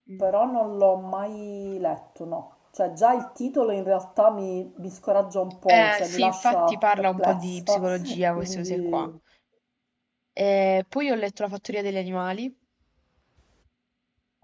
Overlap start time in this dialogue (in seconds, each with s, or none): 5.7 s